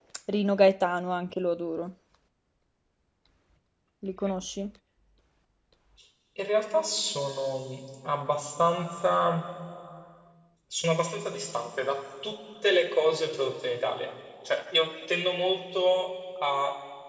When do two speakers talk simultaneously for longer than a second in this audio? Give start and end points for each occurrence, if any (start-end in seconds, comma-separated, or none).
none